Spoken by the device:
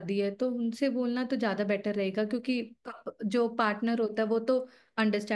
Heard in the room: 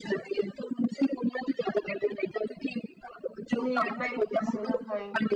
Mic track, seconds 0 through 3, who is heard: echo only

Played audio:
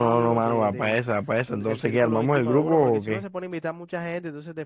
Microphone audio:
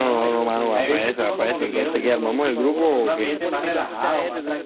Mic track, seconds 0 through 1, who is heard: both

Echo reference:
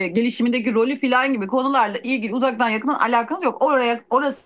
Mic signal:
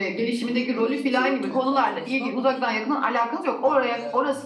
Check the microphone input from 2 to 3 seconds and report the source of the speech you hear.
both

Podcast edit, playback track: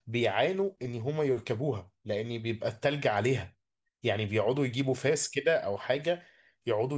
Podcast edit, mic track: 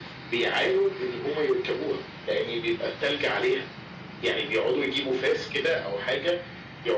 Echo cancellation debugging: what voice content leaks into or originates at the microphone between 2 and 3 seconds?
echo only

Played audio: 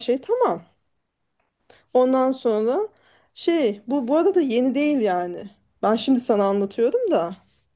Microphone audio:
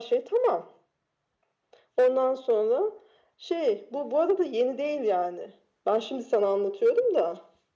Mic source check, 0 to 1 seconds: echo only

